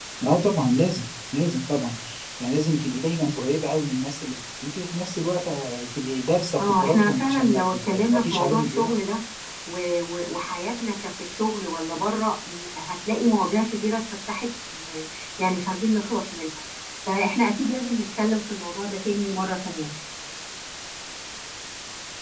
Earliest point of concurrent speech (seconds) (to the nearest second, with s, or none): 7 s